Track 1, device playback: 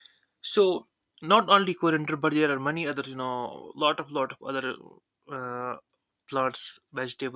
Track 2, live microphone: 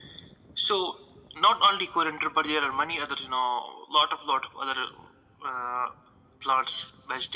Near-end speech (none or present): none